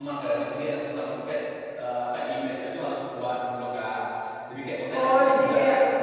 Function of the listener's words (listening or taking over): taking over